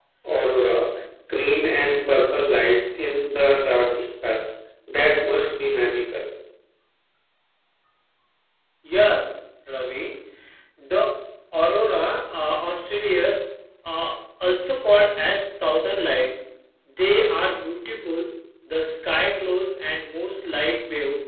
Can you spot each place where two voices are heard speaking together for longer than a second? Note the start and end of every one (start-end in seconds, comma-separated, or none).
none